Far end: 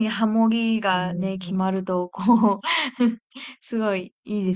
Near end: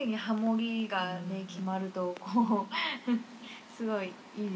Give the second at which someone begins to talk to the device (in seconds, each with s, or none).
none